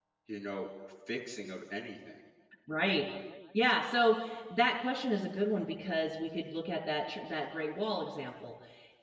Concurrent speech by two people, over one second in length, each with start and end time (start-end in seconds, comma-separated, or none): none